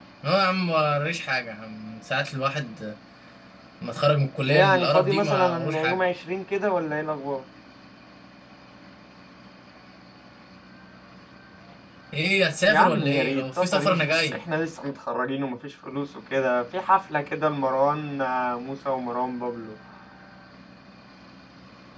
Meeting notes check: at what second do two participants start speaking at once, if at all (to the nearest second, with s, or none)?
4 s